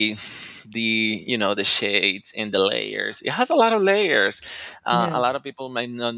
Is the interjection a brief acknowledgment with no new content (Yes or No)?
Yes